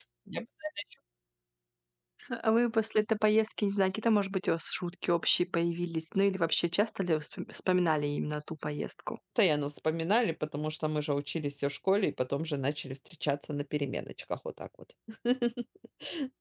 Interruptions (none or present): none